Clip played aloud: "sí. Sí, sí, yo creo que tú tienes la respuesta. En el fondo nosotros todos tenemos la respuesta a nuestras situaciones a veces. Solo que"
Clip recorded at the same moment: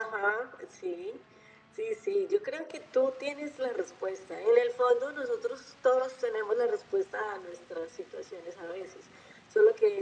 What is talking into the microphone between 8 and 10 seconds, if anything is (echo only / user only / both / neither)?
echo only